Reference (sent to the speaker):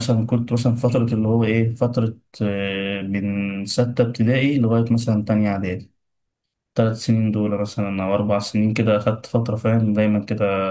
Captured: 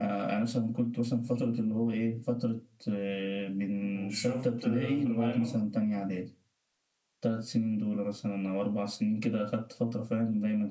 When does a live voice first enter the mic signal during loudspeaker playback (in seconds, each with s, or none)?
3.8 s